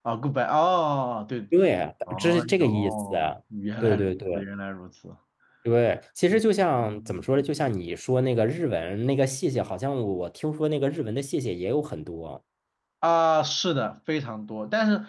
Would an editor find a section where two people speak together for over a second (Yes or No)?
Yes